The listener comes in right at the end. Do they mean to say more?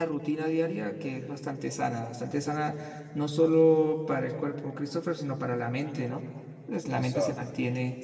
No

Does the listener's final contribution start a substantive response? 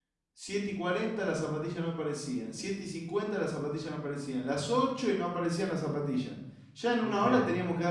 No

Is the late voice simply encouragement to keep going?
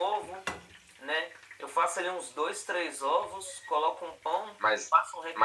No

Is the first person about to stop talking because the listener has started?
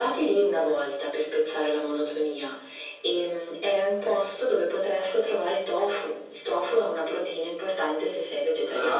Yes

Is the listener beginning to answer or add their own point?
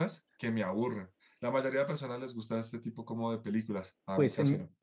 Yes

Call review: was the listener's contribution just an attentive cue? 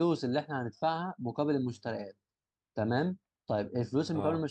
Yes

